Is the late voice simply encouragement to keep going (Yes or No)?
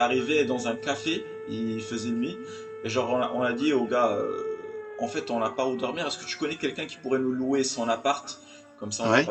Yes